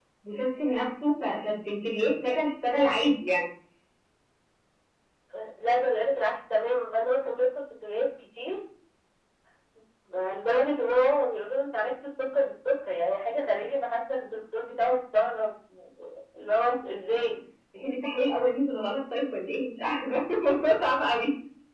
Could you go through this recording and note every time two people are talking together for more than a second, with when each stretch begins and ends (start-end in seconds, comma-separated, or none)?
none